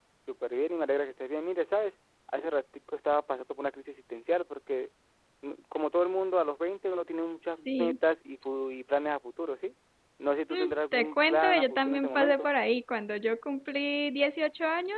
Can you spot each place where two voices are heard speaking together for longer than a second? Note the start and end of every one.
10.5-12.5

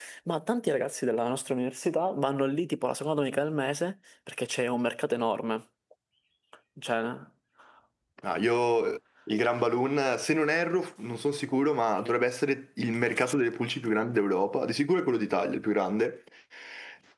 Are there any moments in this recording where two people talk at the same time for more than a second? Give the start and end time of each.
none

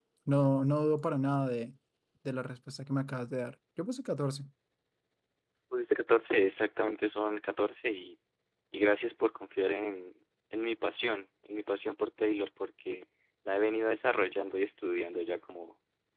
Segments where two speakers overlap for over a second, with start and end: none

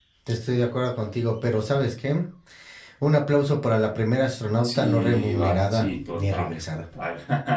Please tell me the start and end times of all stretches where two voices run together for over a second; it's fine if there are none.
4.6-6.8

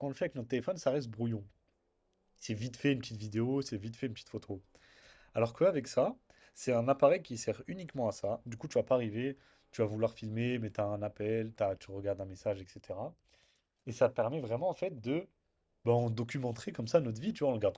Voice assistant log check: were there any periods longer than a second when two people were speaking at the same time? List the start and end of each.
none

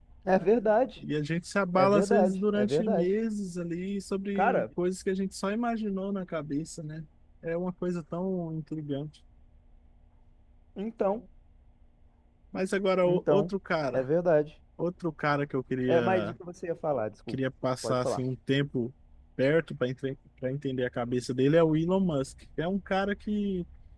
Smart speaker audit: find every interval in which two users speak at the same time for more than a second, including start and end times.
1.8-3.1

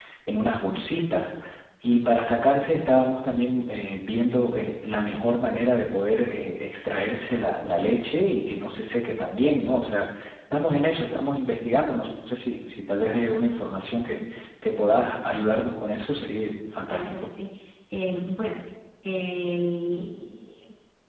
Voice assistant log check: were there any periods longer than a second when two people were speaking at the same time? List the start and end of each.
none

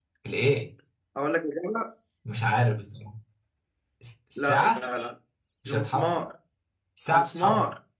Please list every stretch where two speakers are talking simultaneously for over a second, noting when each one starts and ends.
none

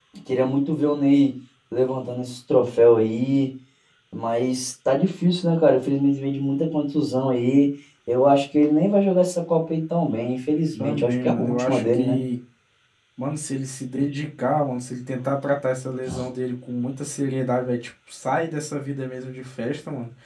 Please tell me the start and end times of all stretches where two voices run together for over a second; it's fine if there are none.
10.8-12.2

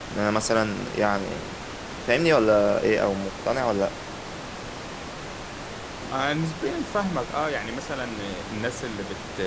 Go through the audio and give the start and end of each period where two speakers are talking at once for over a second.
none

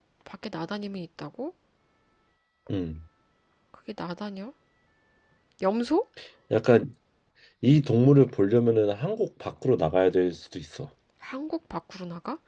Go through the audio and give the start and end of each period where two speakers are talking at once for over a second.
none

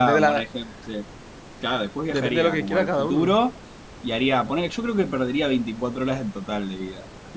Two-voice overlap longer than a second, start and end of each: 2.1-3.4

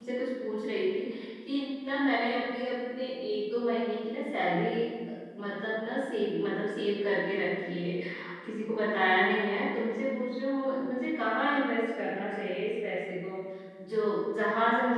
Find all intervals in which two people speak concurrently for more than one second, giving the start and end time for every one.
none

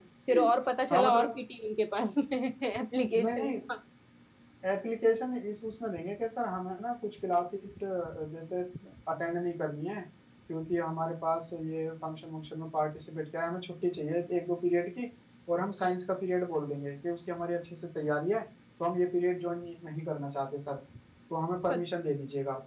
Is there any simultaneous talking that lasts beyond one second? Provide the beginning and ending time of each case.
none

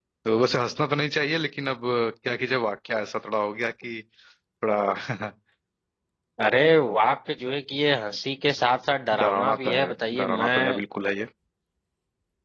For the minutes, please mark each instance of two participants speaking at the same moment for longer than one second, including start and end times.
9.2-10.8

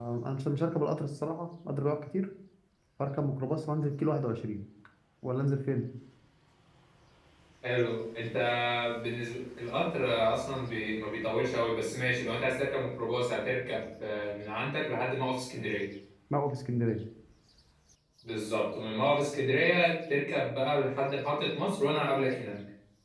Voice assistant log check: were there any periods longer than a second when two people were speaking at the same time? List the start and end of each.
none

